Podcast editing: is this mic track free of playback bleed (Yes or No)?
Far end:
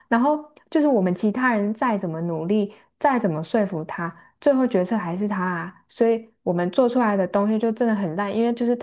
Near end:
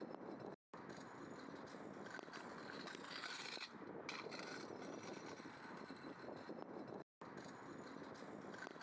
Yes